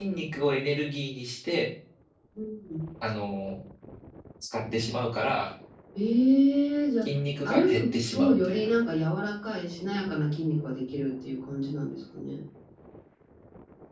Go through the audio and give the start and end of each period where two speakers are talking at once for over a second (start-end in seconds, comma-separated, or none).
7.4-8.7